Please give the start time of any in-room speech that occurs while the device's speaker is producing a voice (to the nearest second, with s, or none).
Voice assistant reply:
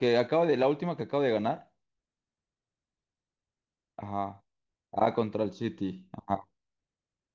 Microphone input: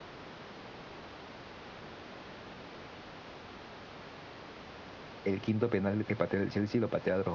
5 s